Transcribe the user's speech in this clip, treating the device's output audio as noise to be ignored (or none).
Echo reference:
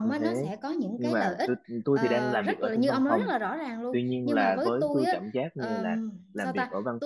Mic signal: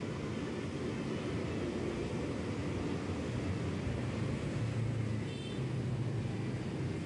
none